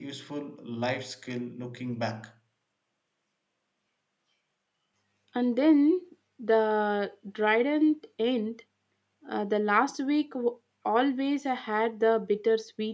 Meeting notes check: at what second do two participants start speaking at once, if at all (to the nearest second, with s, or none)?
none